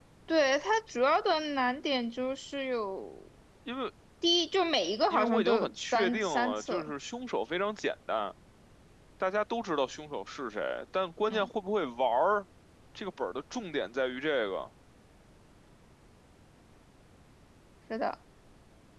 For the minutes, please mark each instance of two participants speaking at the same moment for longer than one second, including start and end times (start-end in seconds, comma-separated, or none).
5.1-6.9